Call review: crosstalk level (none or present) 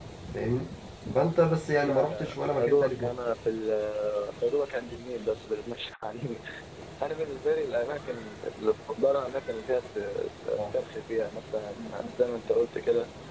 present